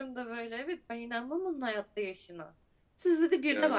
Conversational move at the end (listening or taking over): listening